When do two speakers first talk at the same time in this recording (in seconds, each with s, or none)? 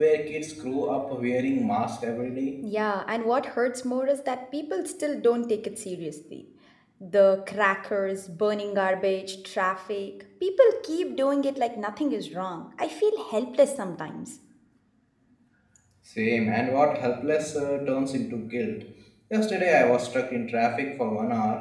none